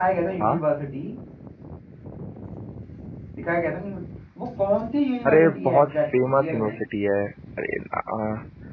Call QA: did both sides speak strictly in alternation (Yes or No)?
No